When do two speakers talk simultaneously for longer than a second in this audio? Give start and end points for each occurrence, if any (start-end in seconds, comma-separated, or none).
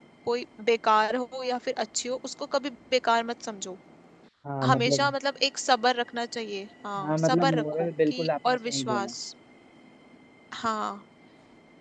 7.0-9.1